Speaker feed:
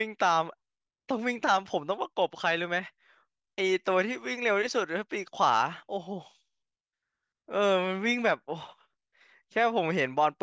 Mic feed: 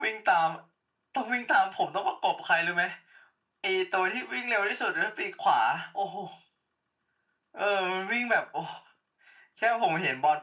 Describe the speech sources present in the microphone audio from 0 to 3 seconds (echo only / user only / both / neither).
echo only